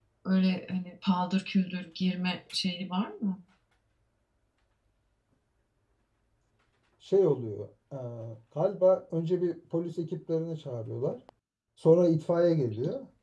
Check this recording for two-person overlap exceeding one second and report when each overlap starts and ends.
none

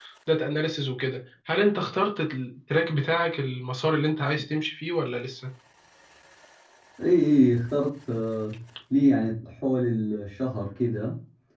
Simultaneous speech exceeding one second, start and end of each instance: none

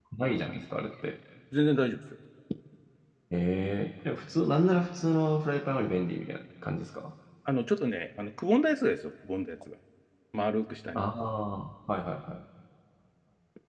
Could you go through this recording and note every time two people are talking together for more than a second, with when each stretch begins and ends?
none

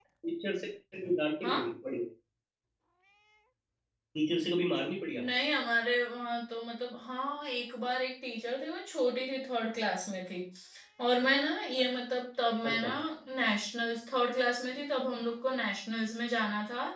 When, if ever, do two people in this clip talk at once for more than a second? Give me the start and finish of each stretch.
none

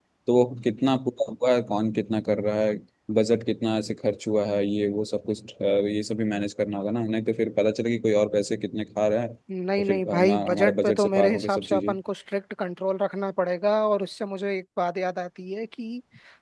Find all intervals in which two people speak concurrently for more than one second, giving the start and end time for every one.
9.8-11.9

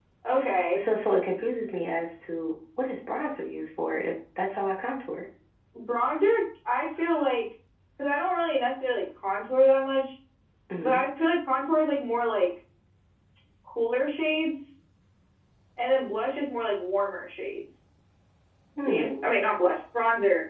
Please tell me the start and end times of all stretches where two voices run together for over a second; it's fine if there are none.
none

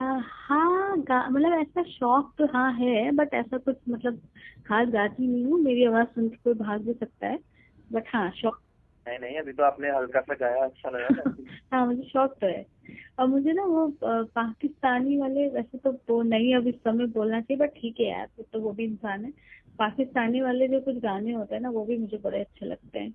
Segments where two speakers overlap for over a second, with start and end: none

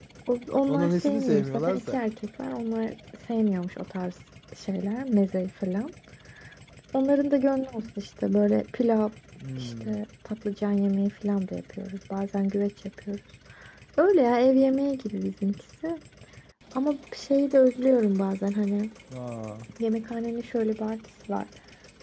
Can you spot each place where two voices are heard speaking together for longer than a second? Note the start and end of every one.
0.7-2.0

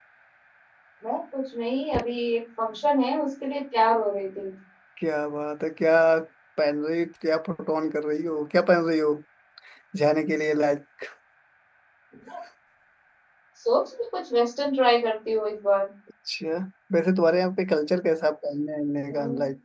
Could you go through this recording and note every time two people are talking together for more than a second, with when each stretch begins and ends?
none

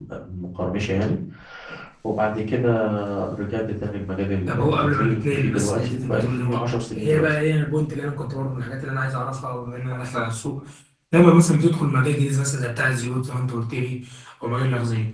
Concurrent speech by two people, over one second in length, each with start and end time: 4.5-7.2

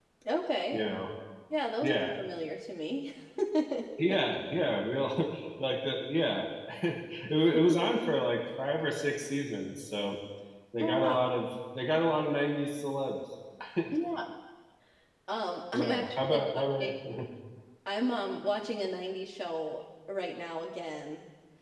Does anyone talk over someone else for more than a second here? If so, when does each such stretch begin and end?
15.7-17.0

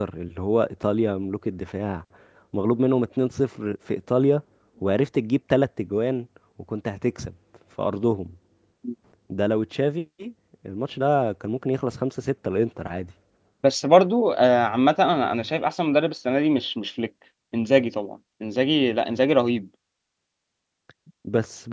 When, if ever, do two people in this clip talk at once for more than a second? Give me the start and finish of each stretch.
none

